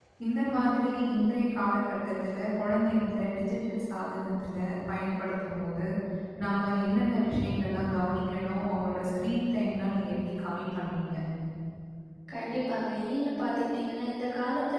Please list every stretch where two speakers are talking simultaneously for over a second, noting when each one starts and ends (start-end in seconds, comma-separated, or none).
none